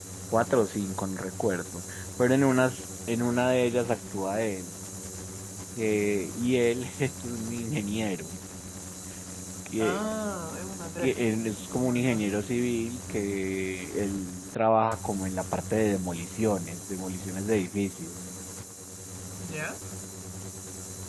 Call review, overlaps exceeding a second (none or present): none